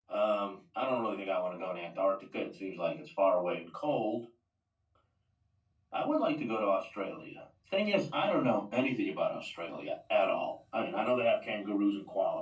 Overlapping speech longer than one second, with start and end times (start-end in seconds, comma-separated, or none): none